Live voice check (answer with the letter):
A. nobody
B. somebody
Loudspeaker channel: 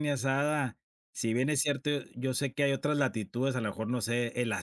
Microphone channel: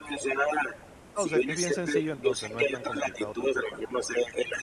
B